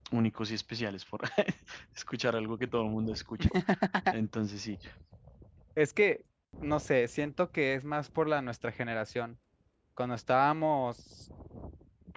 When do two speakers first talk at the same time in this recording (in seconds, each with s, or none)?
none